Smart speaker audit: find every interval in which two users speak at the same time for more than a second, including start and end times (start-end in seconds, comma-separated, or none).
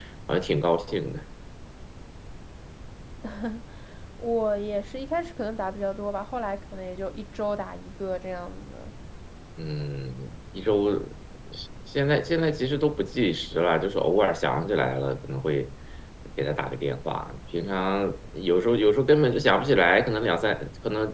none